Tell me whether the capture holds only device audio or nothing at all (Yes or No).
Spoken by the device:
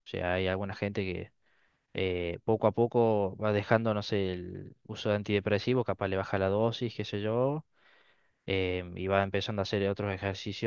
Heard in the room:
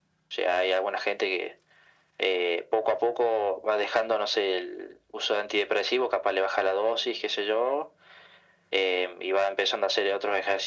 Yes